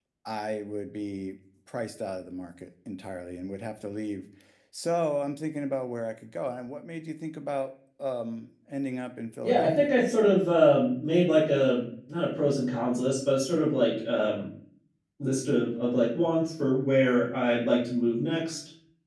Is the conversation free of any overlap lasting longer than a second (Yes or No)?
Yes